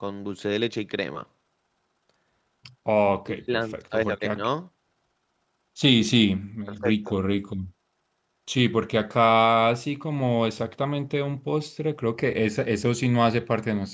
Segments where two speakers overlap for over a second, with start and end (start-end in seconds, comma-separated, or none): 3.3-4.5